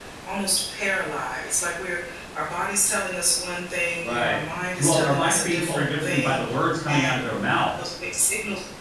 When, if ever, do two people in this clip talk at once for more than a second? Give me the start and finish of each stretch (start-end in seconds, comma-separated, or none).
4.8-6.4